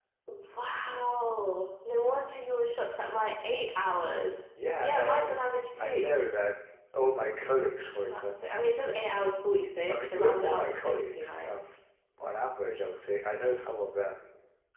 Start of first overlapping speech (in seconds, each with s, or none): 4.8 s